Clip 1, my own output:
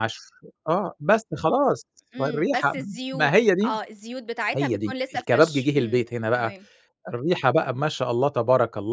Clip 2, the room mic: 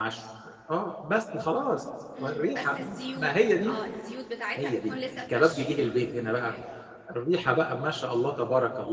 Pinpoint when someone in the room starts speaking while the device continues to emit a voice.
none

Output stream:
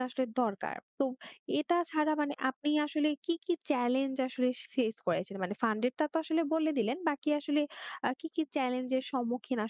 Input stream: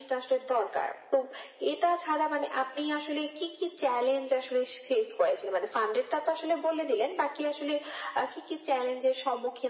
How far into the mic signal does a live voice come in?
none

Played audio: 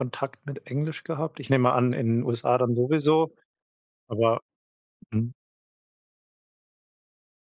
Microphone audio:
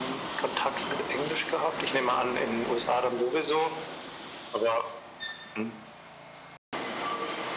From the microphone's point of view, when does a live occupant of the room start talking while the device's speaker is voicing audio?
none

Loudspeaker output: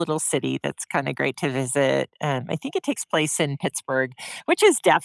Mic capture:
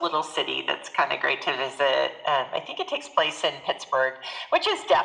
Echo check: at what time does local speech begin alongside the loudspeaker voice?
none

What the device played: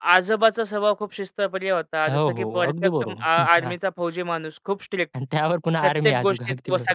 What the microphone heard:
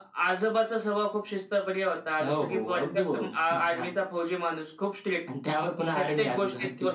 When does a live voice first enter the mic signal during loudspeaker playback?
none

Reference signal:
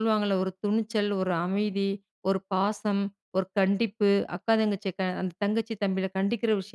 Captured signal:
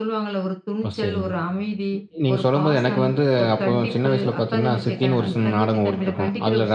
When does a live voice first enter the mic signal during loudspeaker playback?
1 s

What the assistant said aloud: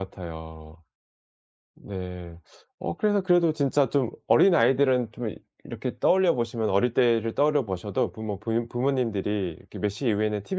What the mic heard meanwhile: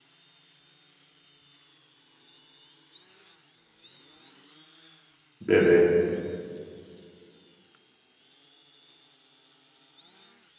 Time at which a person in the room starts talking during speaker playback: 5 s

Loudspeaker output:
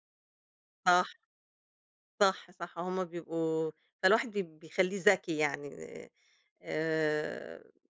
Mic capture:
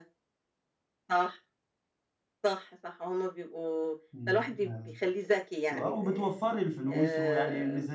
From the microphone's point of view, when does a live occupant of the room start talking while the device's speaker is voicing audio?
4 s

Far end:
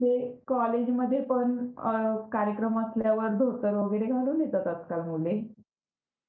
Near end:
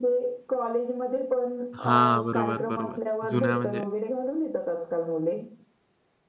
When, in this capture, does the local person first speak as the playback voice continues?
2 s

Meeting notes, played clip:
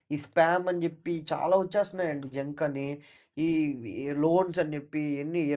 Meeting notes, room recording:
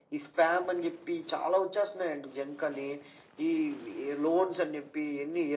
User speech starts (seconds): none

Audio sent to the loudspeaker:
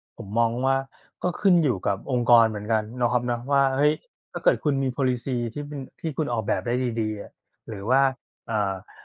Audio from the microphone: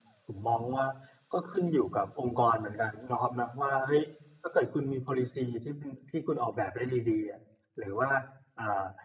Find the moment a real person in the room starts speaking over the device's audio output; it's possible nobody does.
none

